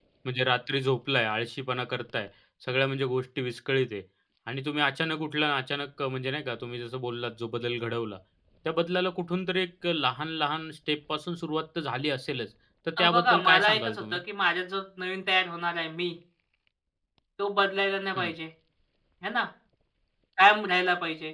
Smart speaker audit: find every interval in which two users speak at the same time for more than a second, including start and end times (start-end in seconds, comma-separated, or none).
13.0-14.2